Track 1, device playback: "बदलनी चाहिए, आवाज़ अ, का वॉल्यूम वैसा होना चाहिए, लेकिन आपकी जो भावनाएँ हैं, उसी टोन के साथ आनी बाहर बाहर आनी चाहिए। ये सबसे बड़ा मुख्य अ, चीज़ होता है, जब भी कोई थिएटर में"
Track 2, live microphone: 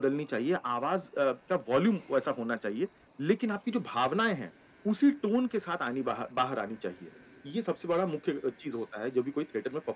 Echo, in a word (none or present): present